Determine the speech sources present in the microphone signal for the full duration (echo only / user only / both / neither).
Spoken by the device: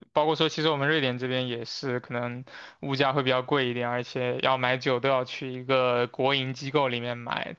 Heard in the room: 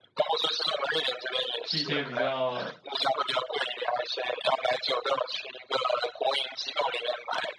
both